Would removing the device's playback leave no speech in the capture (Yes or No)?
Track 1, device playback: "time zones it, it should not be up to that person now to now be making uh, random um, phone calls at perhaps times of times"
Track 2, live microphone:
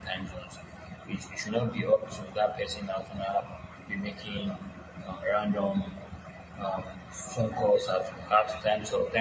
Yes